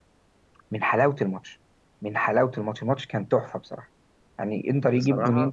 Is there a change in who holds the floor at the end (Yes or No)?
No